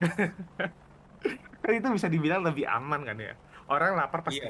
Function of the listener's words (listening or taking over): listening